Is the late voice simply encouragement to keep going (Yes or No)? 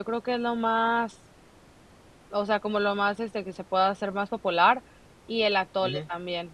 Yes